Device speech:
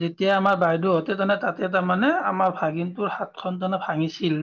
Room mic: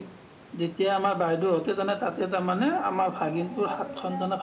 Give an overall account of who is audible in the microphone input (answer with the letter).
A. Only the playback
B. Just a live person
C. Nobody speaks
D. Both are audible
D